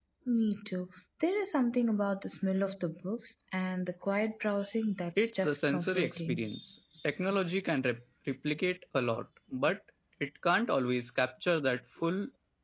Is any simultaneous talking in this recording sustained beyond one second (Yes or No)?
Yes